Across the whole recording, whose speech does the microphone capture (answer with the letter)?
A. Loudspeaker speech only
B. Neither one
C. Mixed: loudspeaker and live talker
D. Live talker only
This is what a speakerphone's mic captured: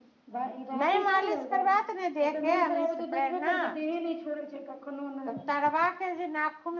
C